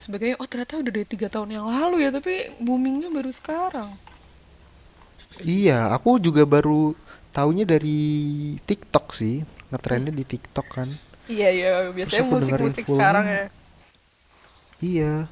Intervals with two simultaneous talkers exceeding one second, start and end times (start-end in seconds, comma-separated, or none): 12.0-13.2